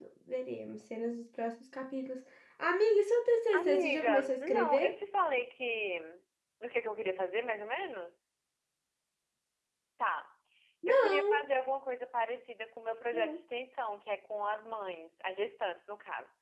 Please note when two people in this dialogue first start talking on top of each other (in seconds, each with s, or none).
3.5 s